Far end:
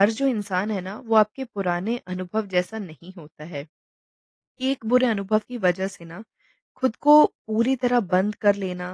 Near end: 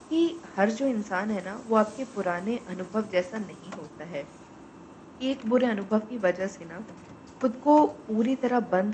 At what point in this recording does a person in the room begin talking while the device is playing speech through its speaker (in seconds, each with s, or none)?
none